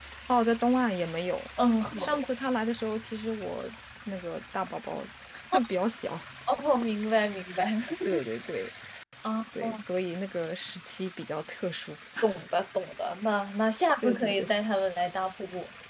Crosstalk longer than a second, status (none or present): none